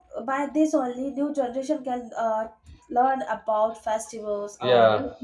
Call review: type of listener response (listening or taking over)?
listening